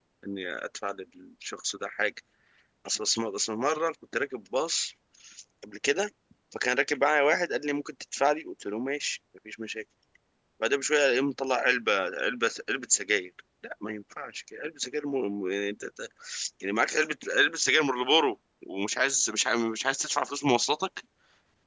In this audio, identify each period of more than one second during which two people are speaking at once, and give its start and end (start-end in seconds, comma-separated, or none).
none